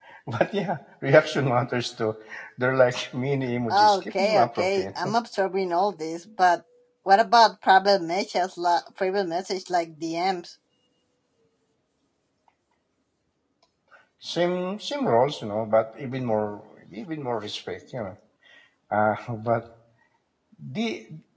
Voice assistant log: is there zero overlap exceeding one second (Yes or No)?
No